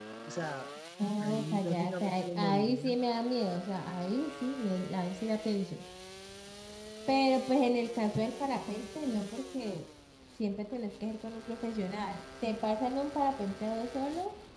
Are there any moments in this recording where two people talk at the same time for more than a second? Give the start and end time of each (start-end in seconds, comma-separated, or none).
1.2-3.0